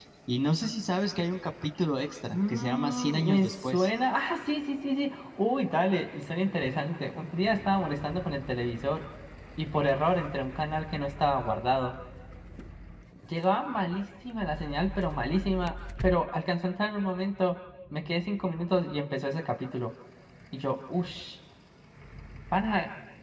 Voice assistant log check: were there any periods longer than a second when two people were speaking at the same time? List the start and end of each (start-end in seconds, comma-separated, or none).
2.3-3.9